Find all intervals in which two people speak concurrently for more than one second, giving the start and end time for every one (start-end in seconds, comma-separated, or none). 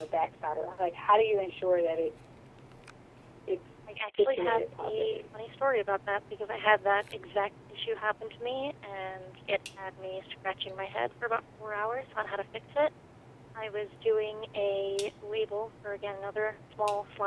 3.9-5.2